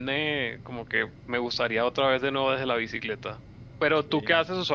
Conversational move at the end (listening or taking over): listening